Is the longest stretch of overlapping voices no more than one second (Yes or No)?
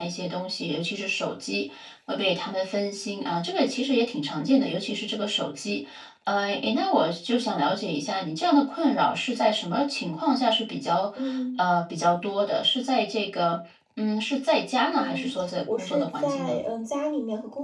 No